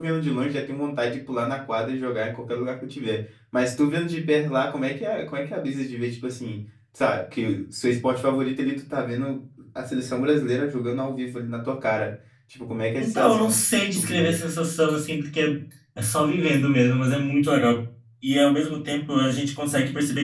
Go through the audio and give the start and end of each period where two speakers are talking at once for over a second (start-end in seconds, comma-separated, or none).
13.0-14.4